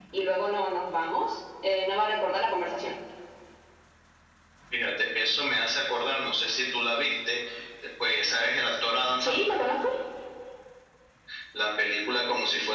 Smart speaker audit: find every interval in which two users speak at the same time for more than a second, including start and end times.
none

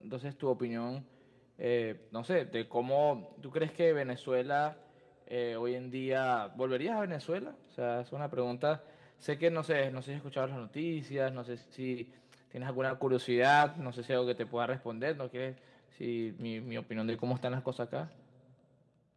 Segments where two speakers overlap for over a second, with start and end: none

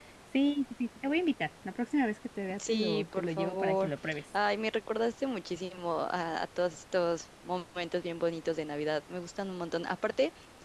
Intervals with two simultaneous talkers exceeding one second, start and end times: 2.7-3.9

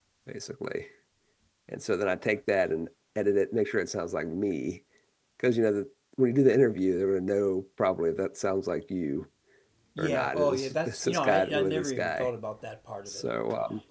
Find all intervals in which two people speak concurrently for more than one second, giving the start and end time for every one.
10.0-12.3

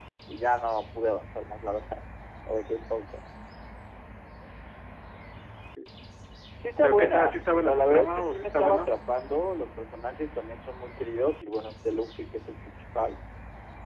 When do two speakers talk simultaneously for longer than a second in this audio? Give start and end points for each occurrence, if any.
6.8-8.9

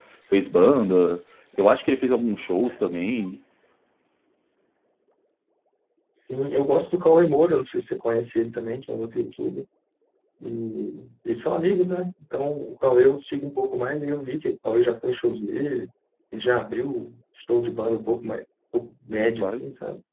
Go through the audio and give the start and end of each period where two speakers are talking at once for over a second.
none

